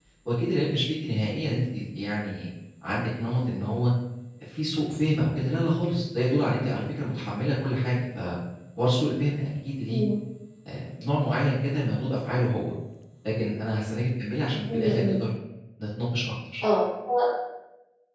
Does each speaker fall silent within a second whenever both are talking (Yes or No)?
Yes